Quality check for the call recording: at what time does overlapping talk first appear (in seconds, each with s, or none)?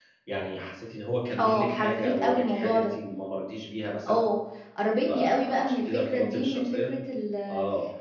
1.4 s